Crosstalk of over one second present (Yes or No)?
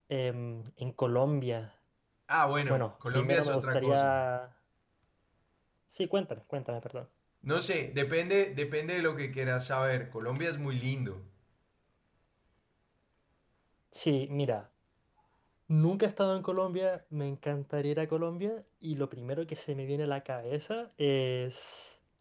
Yes